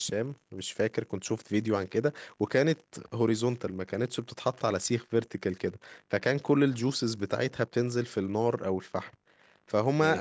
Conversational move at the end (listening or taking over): taking over